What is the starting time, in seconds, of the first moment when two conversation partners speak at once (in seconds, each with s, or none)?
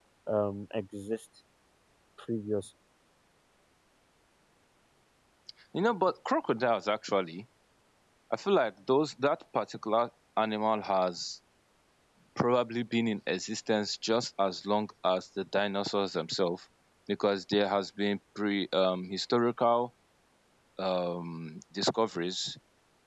none